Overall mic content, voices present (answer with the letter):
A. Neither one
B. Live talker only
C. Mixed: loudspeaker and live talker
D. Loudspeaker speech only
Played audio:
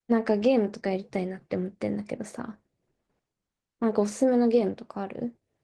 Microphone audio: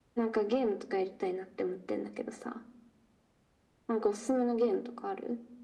D